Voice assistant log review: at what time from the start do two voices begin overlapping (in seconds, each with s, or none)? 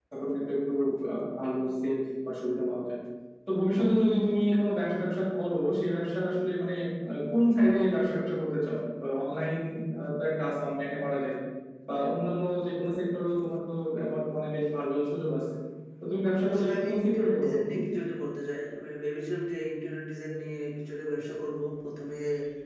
16.5 s